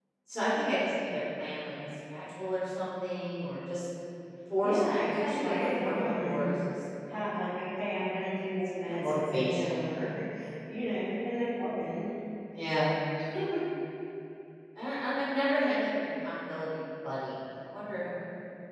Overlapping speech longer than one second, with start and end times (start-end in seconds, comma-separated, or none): 4.6-6.5, 8.7-9.9